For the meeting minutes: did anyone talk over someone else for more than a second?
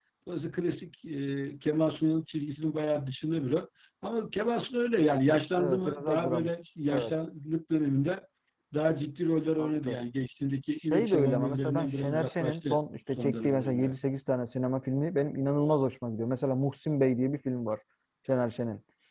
Yes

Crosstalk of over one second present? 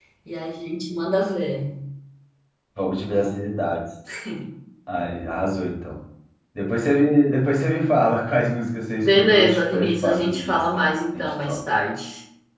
Yes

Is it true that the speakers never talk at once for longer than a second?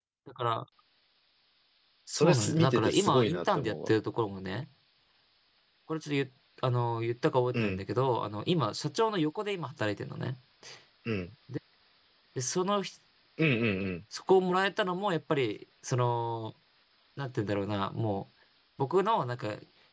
No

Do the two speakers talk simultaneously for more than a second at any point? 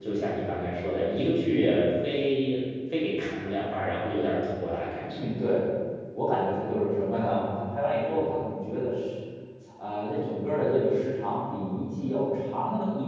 No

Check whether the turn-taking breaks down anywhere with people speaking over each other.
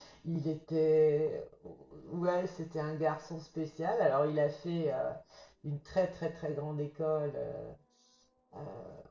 No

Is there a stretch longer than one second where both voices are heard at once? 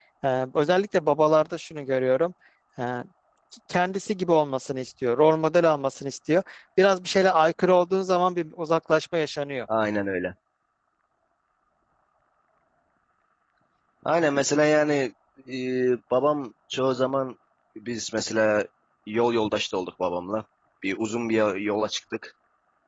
No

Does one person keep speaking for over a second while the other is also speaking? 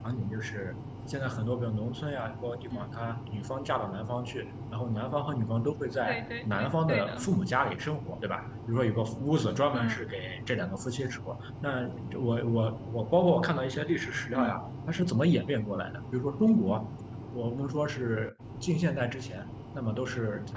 Yes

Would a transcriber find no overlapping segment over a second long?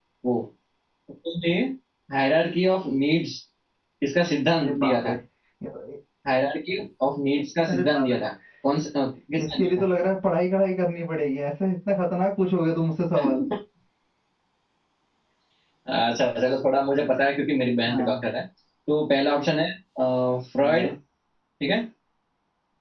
Yes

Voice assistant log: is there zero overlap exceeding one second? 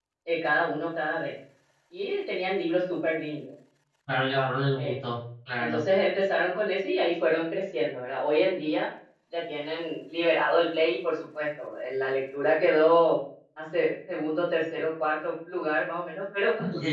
Yes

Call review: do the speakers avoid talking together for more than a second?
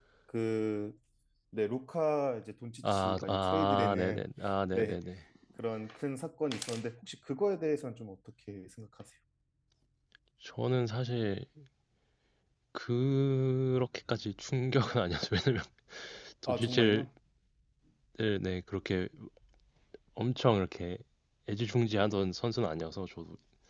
No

